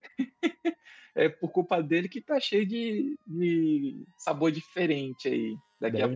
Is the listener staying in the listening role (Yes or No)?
Yes